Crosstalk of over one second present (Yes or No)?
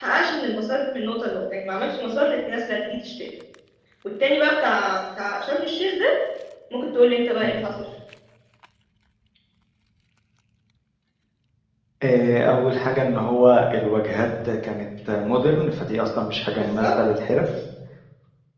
No